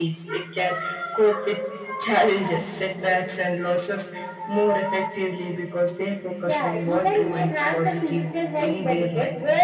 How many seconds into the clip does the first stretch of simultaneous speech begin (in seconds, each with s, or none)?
6.5 s